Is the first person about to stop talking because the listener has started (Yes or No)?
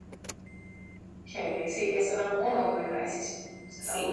Yes